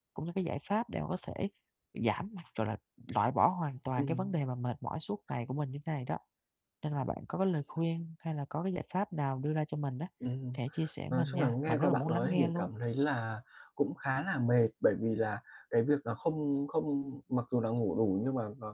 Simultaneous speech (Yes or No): Yes